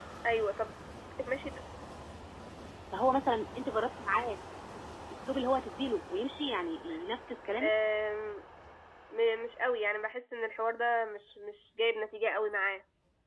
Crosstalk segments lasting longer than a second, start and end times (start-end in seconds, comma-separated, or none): none